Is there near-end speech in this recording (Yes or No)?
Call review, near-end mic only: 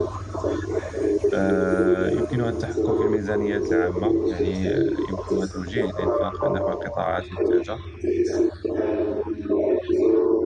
Yes